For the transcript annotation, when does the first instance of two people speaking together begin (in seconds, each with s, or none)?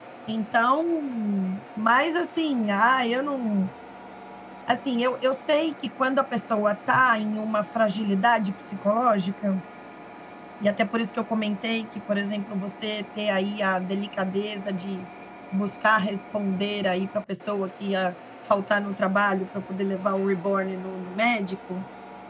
none